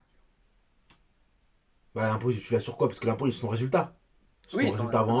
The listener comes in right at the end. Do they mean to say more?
Yes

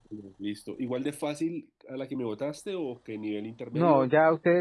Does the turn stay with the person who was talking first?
No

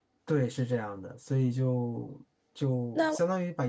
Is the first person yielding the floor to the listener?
No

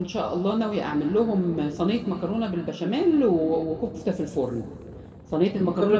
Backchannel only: Yes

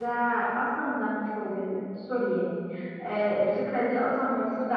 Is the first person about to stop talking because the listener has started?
No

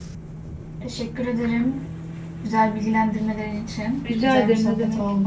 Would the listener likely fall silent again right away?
No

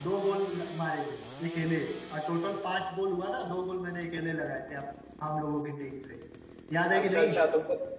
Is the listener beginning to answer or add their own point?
Yes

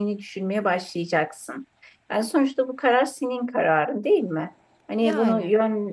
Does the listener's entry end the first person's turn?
No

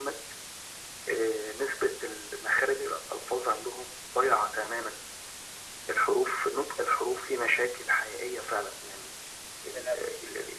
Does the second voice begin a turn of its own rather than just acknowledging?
No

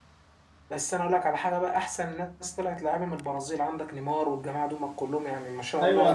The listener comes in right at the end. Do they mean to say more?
Yes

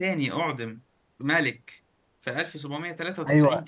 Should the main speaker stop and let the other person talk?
Yes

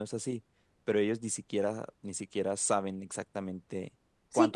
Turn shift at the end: Yes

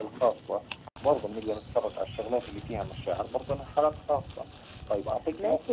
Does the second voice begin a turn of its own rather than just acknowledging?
Yes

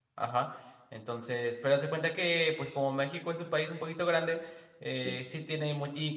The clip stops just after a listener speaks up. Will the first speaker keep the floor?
Yes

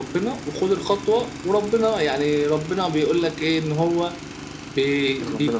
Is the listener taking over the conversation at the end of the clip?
No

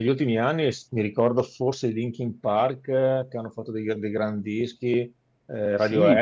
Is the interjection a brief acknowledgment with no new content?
No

